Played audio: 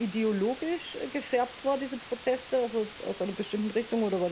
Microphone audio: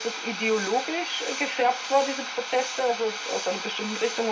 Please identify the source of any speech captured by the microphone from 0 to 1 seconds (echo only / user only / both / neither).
echo only